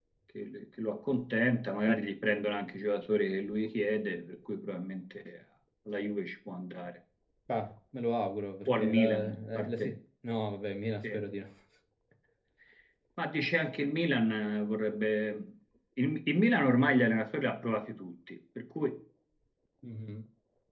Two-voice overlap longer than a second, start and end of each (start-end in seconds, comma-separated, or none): 8.7-9.9